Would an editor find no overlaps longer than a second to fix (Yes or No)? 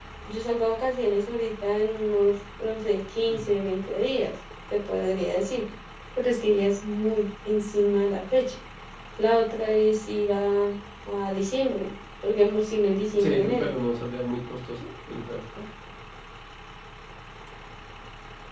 Yes